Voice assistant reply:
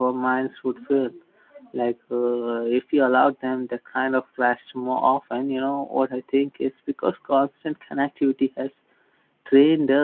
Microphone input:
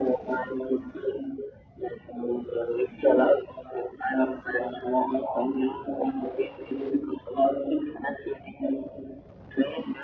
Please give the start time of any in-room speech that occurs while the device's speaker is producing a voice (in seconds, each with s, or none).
none